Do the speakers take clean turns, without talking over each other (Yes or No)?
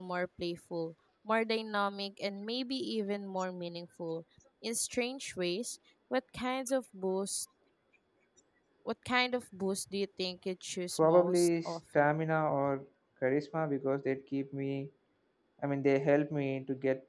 No